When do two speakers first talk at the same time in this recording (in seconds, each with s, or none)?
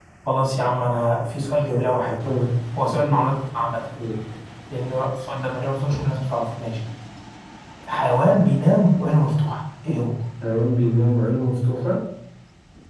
none